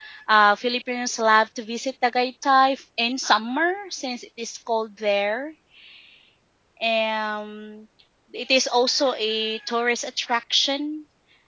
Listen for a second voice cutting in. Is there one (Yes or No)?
No